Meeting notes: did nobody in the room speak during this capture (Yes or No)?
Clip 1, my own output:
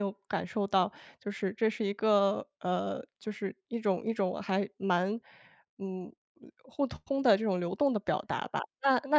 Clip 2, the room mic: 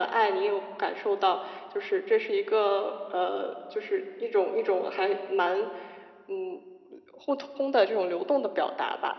Yes